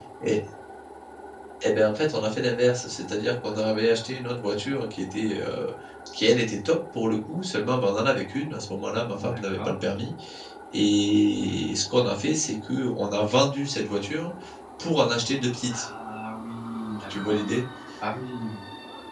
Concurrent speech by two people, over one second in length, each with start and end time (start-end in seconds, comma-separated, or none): none